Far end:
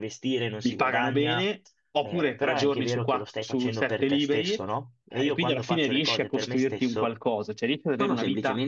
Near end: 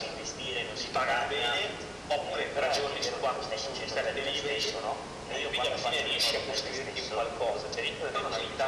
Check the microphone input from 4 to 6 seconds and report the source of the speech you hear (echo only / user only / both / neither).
echo only